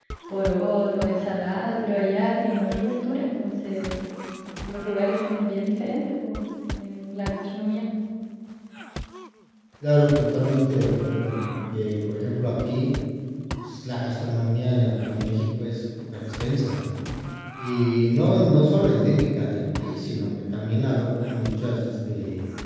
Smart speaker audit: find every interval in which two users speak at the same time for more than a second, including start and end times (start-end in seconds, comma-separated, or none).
none